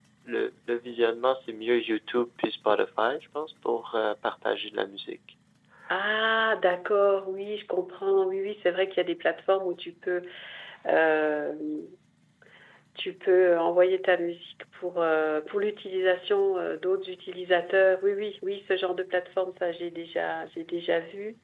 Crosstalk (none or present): none